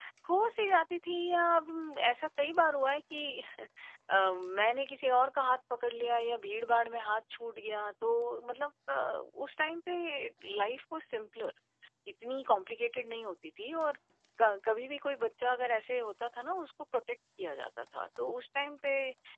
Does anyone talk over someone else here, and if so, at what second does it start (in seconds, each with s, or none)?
none